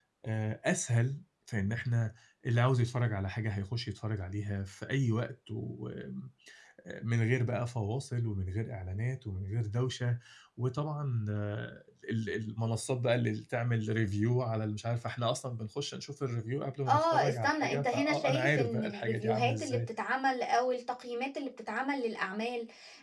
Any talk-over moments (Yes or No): Yes